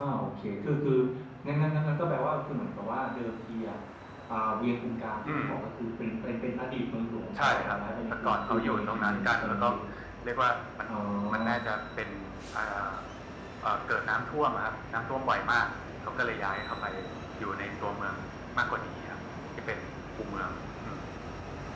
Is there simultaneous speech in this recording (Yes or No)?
Yes